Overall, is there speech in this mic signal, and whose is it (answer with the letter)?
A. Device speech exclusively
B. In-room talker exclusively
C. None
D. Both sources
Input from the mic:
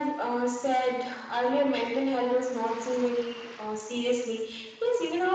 A